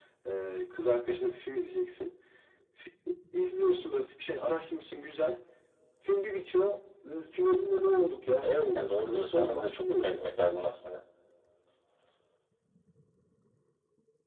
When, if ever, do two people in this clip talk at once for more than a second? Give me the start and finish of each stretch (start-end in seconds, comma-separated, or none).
8.4-10.7